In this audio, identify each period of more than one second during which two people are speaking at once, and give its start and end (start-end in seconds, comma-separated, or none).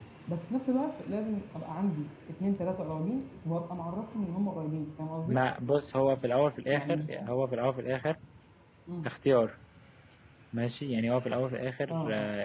none